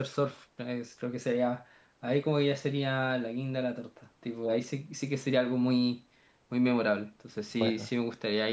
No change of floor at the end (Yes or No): Yes